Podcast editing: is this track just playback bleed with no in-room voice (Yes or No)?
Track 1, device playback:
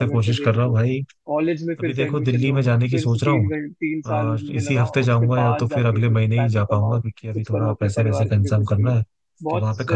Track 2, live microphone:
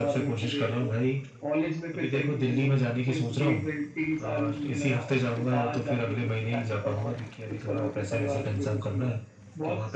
Yes